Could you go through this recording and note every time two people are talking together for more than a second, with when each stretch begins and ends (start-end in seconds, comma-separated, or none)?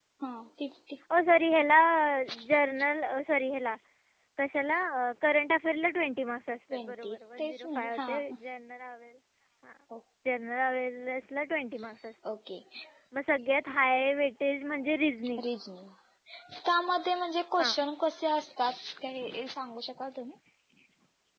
6.9-8.2